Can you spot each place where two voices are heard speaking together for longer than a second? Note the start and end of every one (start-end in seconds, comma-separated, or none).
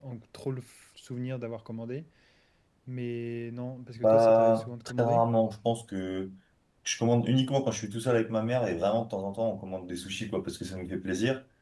4.0-5.2